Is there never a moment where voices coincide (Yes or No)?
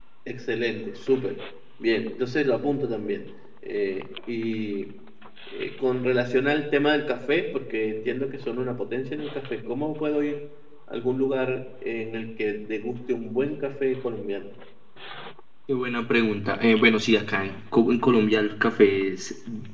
Yes